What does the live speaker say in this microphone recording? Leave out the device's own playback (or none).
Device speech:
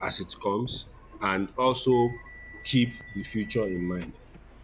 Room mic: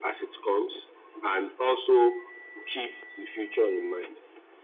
none